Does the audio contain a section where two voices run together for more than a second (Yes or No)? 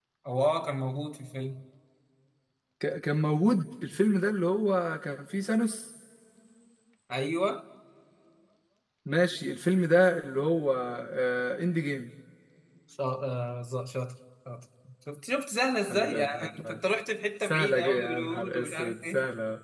Yes